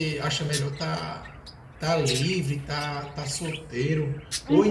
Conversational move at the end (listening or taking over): taking over